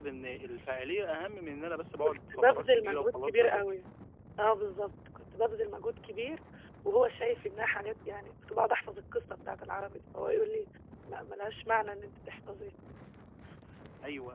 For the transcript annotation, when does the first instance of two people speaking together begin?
2.0 s

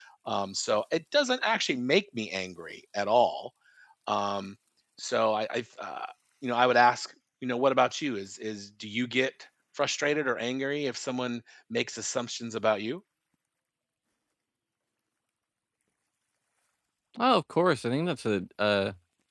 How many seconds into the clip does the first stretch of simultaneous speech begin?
none

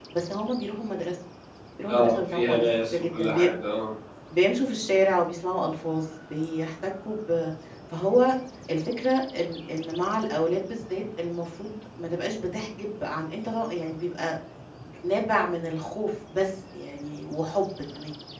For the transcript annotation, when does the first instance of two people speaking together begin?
1.9 s

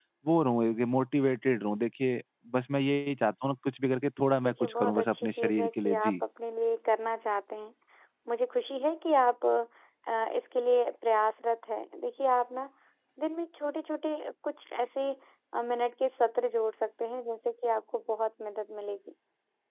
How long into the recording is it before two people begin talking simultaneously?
4.4 s

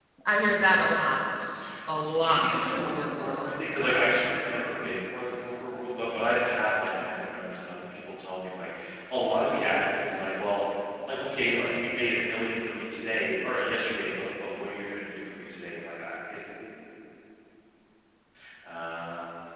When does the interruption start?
2.2 s

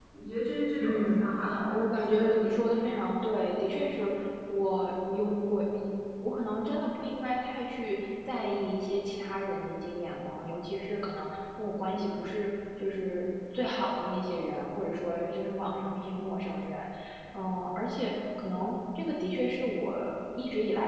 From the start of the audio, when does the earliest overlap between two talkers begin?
0.8 s

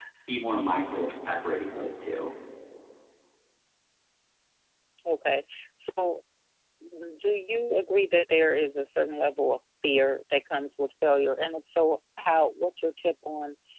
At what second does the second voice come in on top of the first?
none

